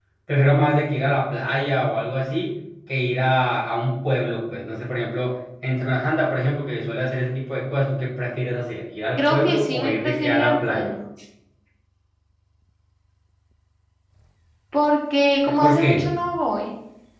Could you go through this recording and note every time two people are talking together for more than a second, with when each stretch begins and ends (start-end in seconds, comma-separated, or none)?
9.2-10.9